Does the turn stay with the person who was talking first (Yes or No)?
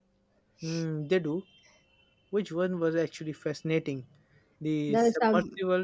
Yes